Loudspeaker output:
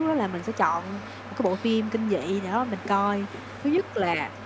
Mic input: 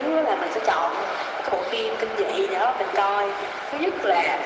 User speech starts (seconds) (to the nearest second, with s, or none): none